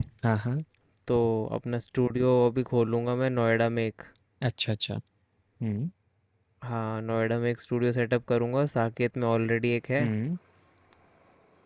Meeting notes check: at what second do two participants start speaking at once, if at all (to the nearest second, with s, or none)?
none